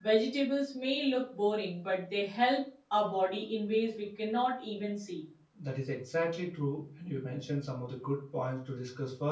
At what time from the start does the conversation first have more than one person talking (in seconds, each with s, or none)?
none